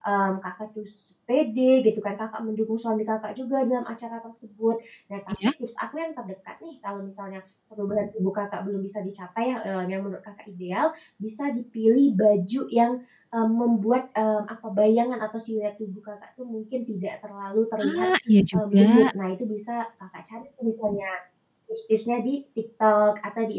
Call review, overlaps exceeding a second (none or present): none